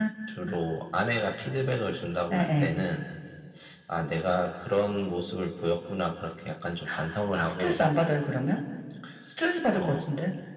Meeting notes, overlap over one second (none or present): none